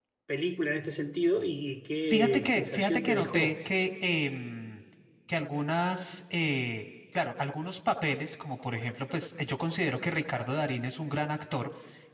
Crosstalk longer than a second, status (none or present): present